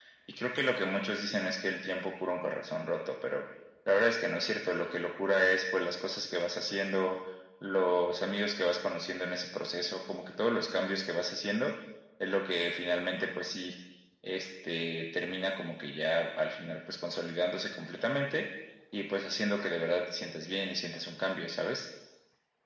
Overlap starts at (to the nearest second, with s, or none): none